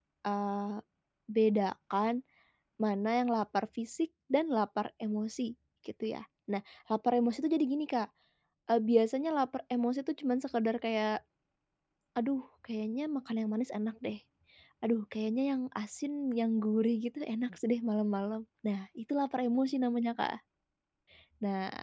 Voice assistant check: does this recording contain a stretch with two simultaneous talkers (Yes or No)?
No